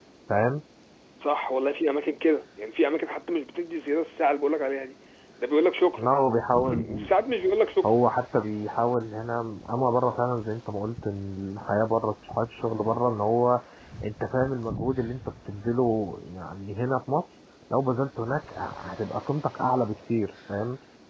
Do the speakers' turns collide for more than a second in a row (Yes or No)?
No